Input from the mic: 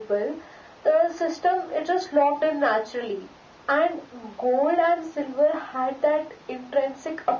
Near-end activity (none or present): none